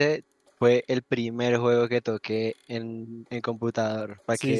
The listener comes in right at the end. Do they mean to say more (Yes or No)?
Yes